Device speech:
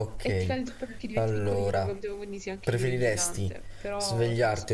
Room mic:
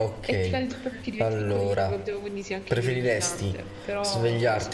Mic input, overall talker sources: echo only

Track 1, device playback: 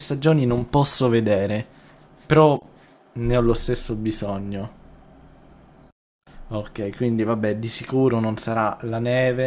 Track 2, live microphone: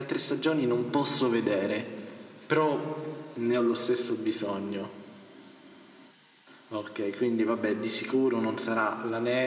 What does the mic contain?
echo only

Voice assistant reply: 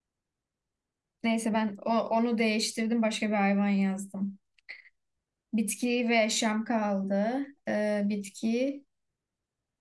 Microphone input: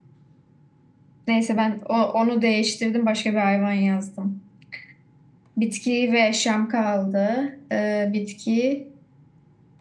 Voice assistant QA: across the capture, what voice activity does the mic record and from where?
echo only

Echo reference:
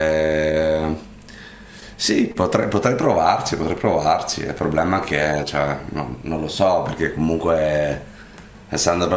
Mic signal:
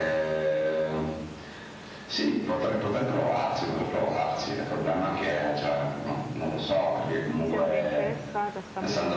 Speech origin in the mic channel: both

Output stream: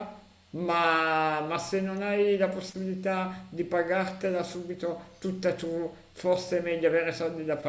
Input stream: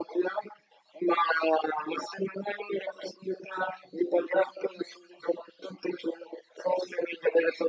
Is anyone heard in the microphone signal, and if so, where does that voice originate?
echo only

